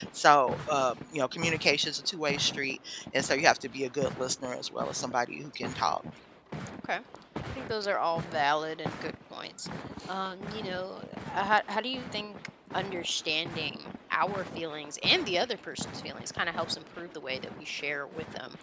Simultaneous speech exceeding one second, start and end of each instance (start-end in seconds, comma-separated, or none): none